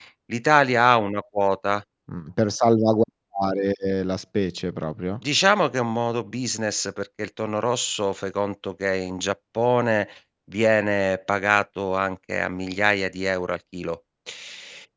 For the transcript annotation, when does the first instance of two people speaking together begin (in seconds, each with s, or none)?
none